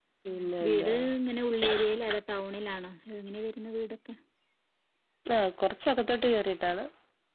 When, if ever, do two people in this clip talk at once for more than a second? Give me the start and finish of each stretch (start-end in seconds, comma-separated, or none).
none